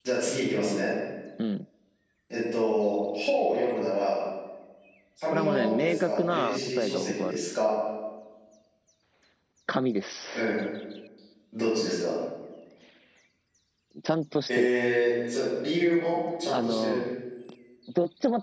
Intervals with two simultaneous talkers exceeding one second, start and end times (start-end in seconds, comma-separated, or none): 5.3-7.4